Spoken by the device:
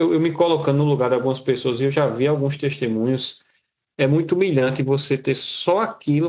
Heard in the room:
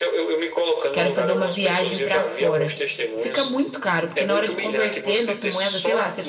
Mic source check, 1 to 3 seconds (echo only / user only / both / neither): both